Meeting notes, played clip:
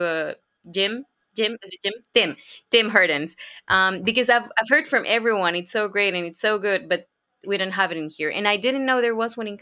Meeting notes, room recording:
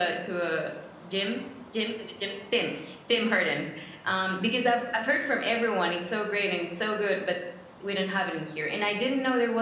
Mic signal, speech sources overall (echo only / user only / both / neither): echo only